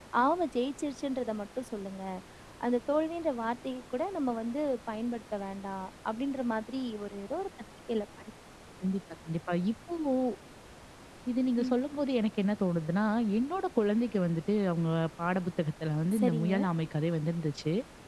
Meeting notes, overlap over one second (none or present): none